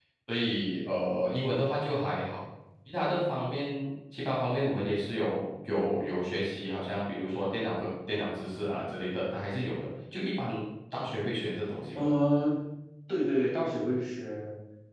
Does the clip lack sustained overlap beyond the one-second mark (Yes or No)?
Yes